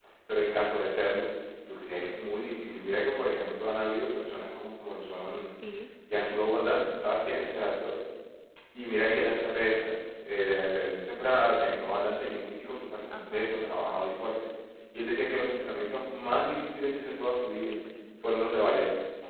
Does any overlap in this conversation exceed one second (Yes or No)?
No